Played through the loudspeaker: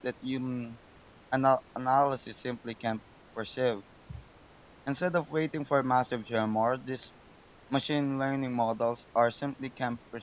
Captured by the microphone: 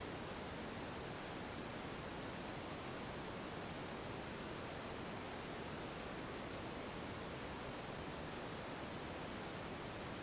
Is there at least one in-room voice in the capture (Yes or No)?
No